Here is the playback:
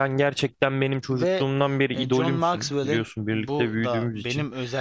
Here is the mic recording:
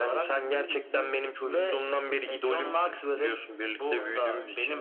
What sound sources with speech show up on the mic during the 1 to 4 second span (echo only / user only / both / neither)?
both